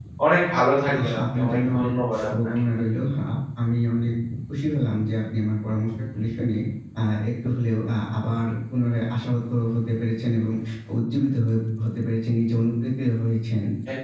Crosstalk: present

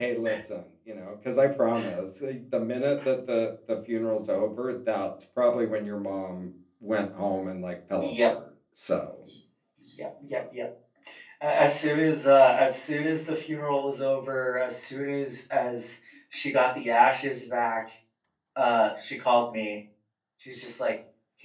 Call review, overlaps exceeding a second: none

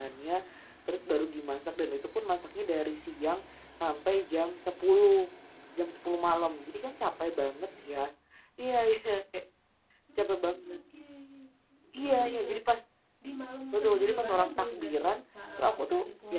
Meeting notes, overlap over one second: present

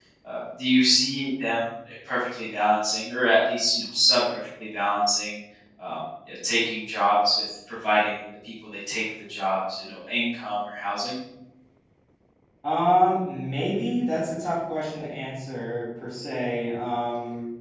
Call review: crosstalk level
none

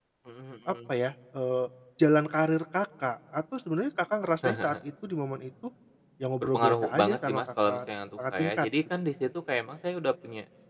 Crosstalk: present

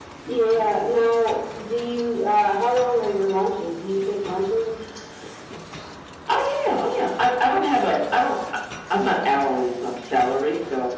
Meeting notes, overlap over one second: none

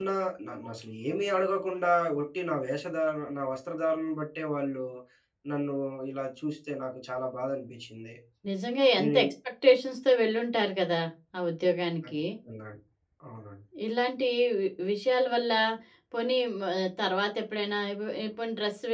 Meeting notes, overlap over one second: none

